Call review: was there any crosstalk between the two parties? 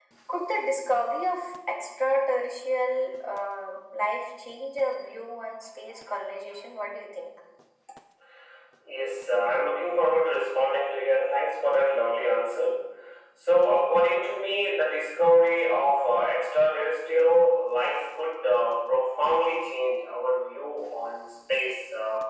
No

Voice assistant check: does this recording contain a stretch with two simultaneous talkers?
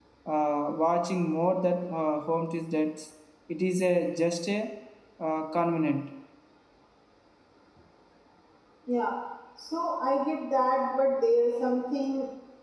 No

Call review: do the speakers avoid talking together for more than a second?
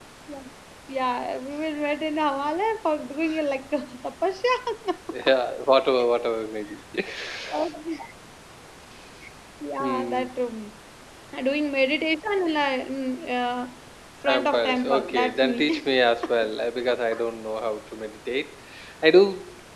No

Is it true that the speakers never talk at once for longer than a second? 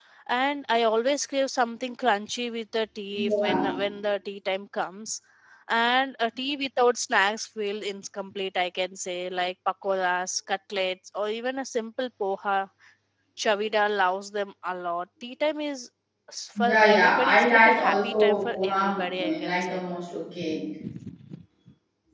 No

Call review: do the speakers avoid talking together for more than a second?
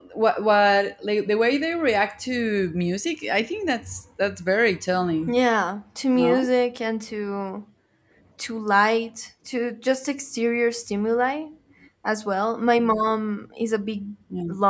Yes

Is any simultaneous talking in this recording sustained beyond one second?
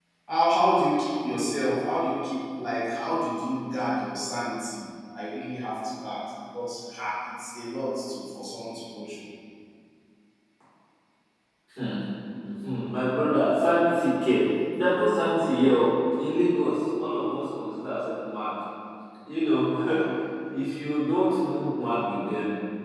No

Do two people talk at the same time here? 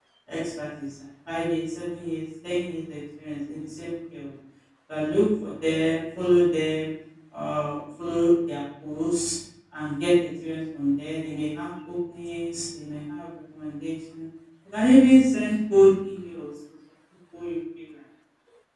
No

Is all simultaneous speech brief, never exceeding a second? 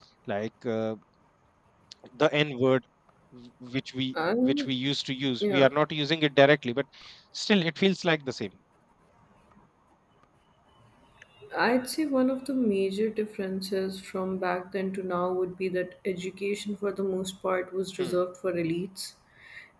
Yes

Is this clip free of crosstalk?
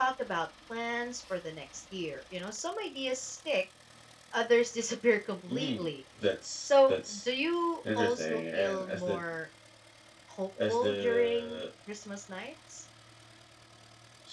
No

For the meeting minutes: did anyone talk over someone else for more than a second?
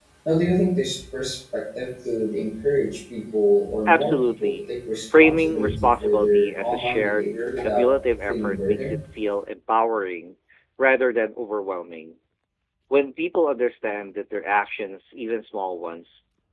Yes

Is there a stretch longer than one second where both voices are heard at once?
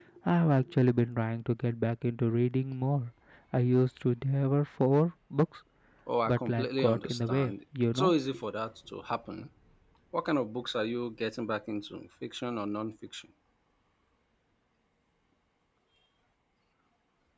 Yes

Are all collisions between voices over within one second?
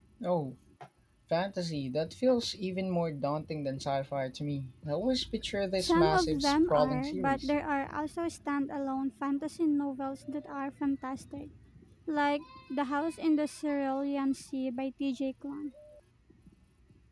No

